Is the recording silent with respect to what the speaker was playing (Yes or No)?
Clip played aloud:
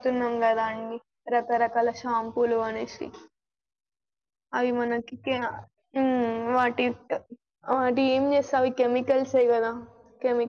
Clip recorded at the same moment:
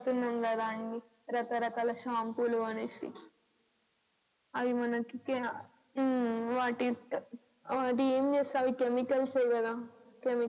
No